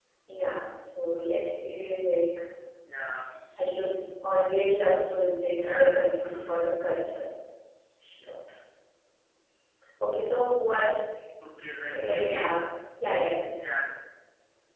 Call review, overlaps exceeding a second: none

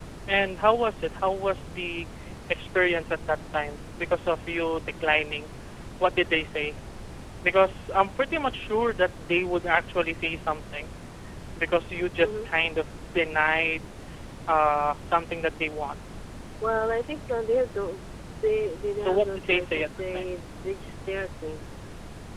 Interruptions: present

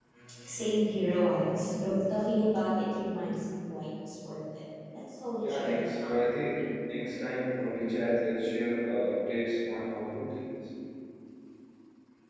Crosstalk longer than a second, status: present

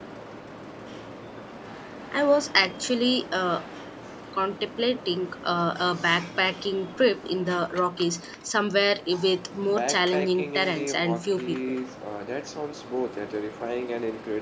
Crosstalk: present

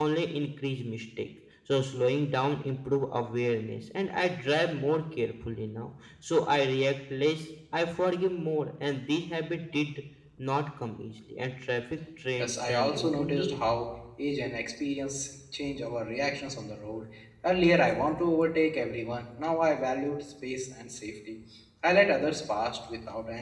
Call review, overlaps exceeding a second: present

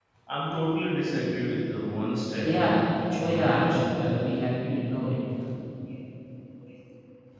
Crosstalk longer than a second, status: present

